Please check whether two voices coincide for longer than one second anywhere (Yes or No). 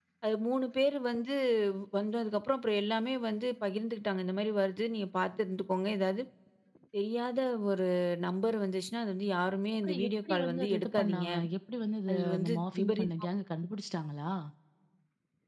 Yes